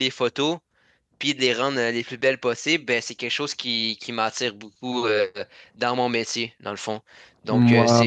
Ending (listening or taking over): listening